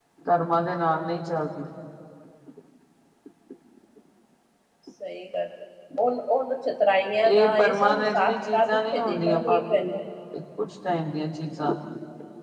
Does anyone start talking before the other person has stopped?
Yes, from 7.2 s

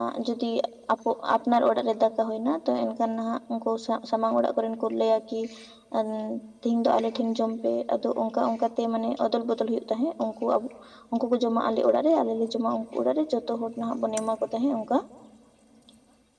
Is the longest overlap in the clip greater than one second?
No

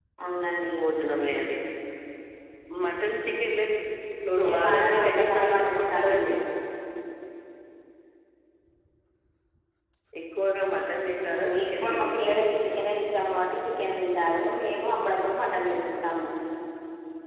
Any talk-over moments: Yes, from 4.4 s

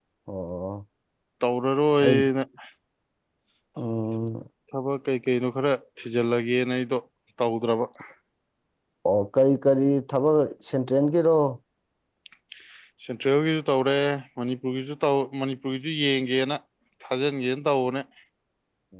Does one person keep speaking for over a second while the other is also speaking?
No

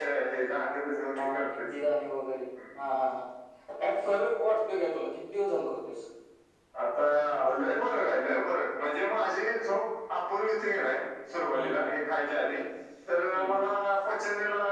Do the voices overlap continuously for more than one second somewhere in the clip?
No

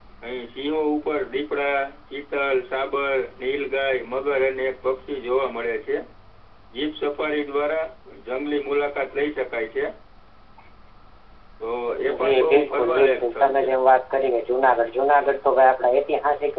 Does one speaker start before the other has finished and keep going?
Yes, from 12.2 s

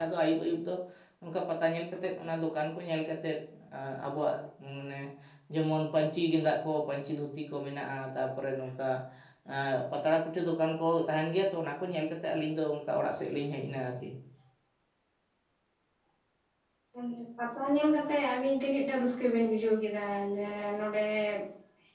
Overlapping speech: No

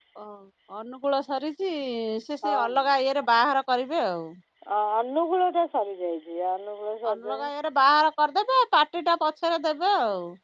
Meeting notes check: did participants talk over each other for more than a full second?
No

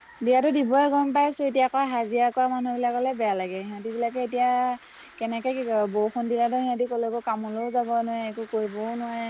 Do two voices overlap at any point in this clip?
No

